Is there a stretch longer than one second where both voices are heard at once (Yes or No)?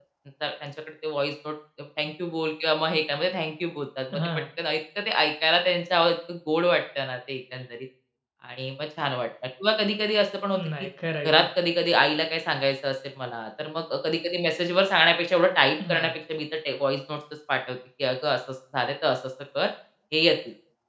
No